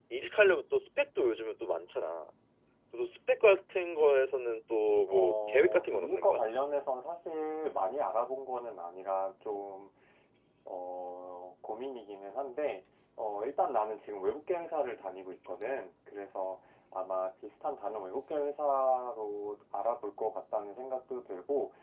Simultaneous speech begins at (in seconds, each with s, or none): 5.1 s